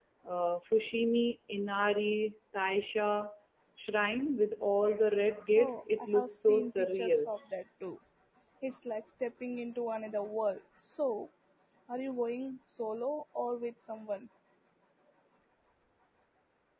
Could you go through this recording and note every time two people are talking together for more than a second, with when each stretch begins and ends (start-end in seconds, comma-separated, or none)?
5.5-7.3